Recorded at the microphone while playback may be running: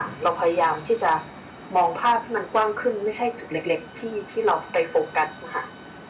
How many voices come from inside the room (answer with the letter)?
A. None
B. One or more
A